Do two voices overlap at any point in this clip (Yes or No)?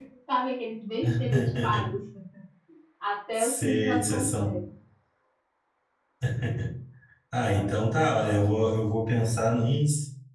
Yes